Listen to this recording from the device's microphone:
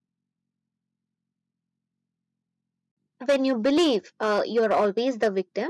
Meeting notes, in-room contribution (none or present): present